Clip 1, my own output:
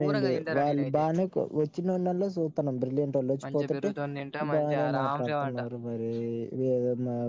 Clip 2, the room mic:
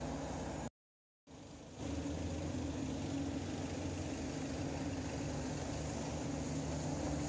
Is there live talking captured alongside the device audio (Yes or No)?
No